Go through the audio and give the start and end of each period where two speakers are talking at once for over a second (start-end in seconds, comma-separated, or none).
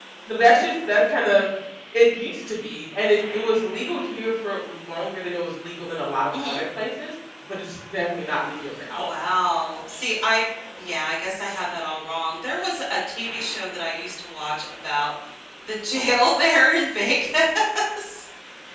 none